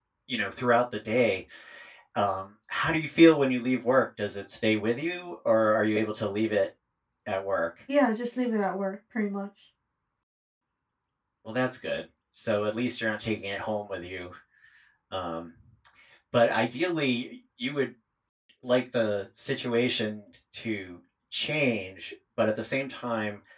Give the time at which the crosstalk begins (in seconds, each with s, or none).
none